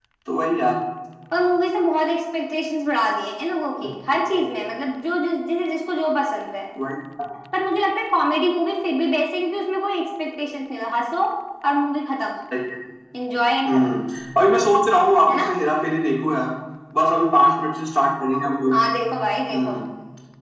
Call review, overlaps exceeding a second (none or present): none